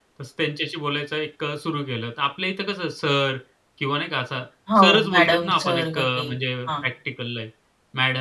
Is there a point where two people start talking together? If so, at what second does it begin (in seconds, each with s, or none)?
4.8 s